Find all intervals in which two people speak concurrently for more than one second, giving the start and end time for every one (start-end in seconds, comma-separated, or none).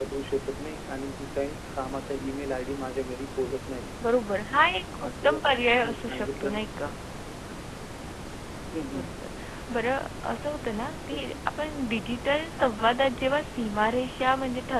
5.1-6.6